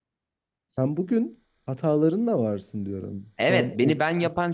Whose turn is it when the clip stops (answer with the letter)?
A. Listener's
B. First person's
A